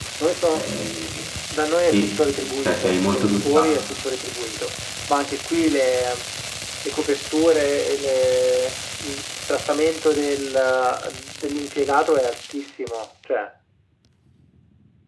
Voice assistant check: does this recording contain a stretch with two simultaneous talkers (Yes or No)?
Yes